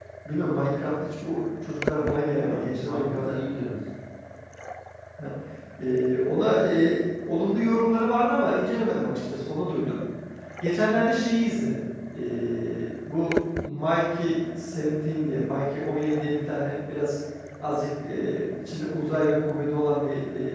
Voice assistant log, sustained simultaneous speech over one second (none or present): present